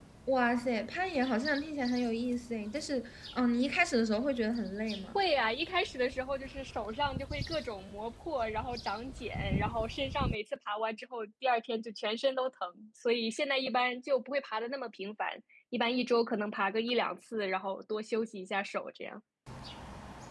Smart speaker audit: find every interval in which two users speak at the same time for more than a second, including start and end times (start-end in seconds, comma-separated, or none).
none